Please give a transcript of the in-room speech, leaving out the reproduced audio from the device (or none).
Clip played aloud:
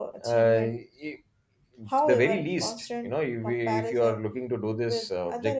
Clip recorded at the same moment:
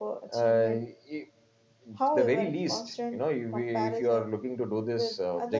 none